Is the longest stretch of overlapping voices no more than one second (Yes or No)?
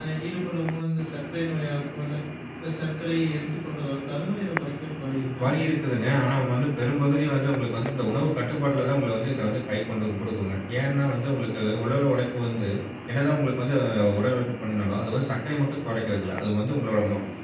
Yes